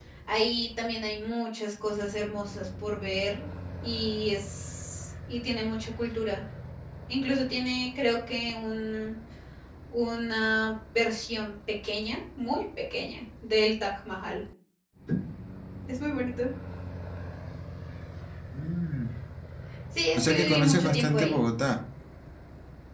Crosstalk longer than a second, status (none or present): present